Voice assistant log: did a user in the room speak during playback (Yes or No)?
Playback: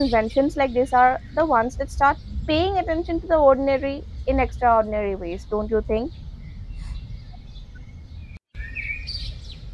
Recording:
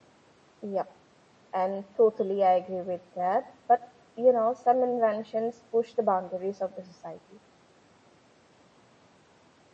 Yes